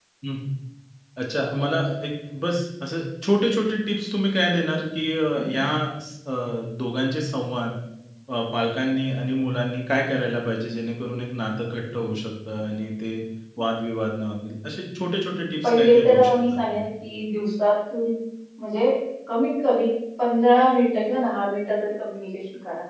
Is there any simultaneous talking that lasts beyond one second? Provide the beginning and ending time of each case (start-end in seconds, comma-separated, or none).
15.6-16.9